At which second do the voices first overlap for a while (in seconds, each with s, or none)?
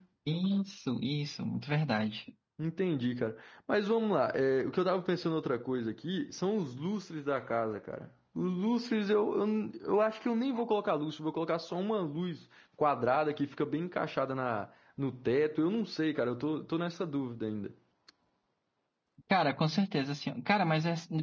none